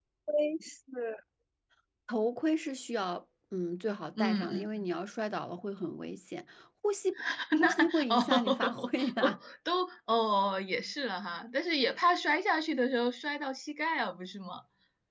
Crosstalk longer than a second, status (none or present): present